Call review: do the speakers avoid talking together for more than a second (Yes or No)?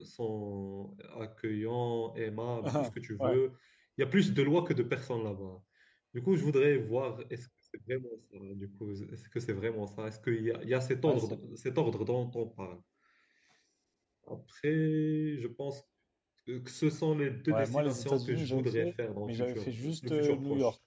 No